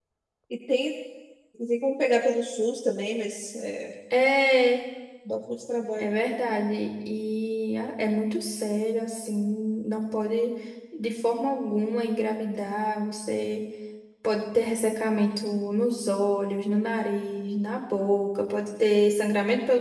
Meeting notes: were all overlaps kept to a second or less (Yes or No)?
Yes